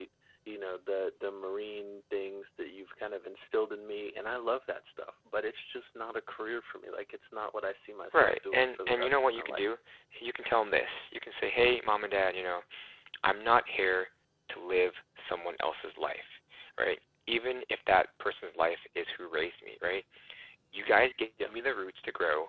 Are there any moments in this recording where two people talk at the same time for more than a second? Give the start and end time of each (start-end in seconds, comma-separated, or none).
8.1-9.6